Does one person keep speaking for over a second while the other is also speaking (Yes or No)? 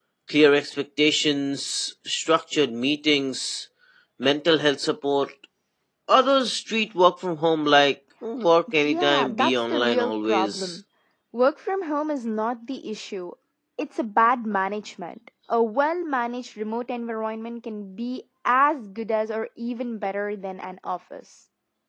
Yes